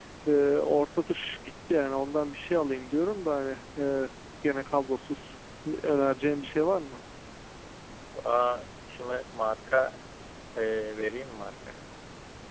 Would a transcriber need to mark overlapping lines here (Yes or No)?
No